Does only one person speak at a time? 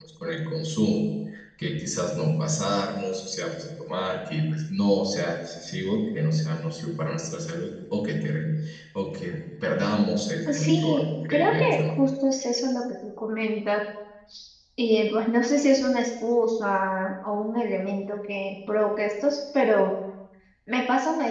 No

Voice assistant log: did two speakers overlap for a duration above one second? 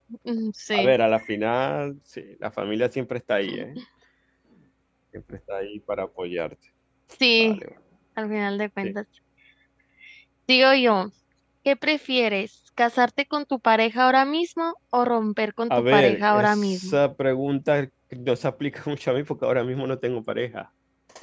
Yes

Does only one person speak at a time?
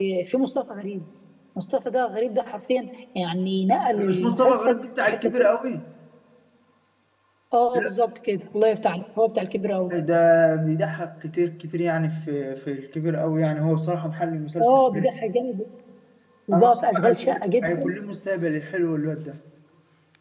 No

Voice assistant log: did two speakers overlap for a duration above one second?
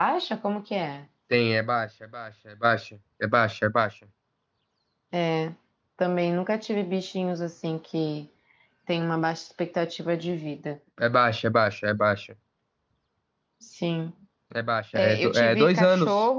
Yes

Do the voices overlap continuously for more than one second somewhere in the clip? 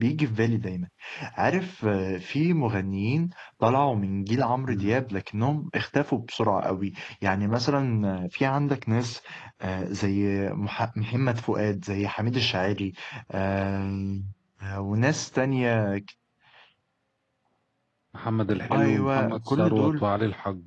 Yes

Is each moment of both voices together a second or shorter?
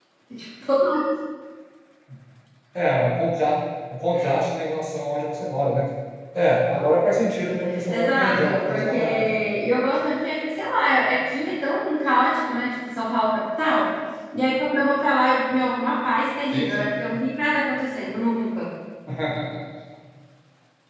No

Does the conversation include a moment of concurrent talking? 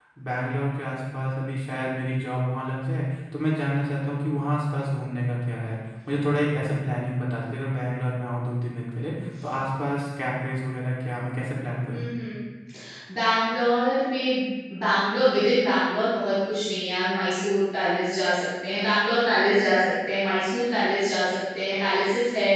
No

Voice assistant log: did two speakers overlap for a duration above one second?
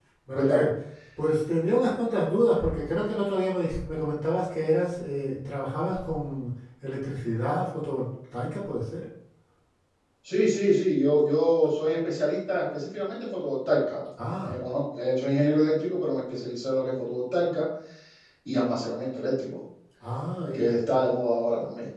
No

